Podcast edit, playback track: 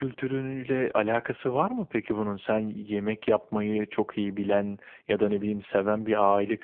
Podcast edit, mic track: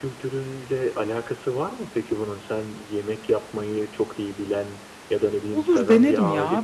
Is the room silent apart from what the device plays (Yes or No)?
No